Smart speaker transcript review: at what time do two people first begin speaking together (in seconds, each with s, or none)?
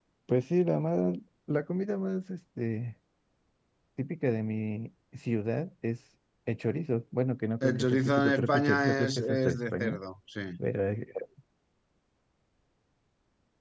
7.6 s